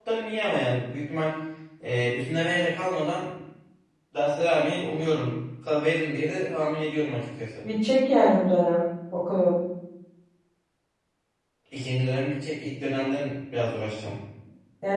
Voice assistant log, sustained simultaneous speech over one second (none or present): none